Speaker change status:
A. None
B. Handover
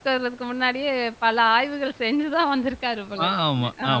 B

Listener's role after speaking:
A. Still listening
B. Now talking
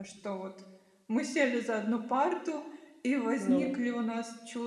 A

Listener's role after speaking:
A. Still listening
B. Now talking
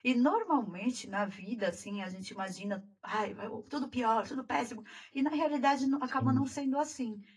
A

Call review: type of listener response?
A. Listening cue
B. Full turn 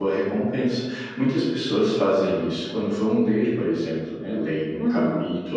A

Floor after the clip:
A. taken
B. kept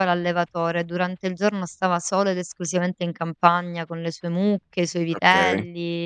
B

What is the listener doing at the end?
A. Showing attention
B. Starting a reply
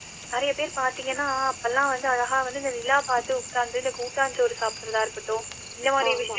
A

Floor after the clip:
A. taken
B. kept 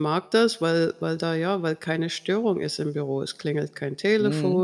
B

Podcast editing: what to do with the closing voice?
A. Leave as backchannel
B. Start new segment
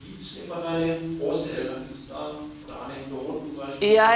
B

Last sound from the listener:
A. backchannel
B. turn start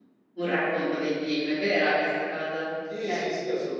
B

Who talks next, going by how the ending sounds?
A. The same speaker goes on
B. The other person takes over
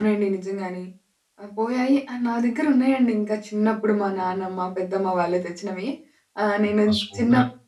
A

